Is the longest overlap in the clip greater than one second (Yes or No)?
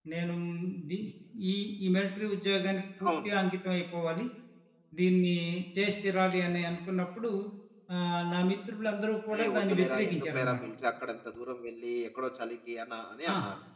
Yes